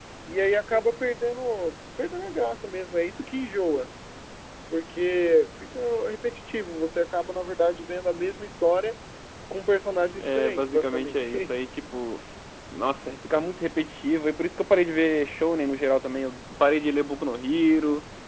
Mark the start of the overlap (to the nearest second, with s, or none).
10 s